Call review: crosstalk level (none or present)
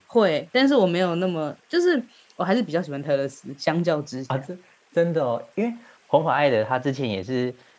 none